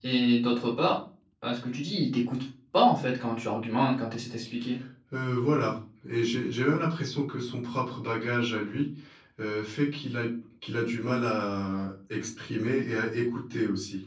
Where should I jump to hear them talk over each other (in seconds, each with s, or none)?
none